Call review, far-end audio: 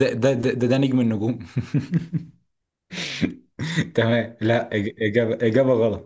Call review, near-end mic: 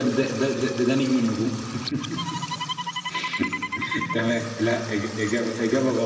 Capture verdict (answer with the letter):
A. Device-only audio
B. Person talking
A